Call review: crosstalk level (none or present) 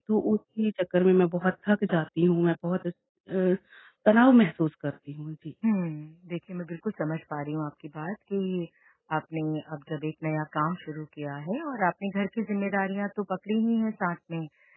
none